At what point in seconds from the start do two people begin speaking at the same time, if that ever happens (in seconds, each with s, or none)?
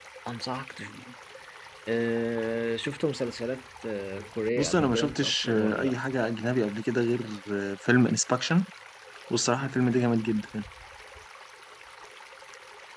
4.6 s